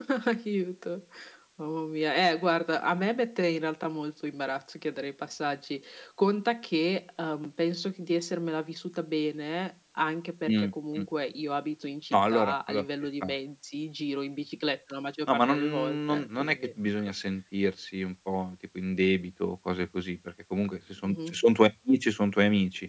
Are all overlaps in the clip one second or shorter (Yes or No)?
No